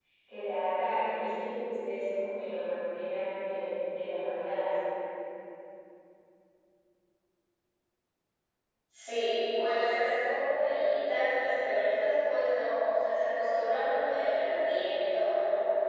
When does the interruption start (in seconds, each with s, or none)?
none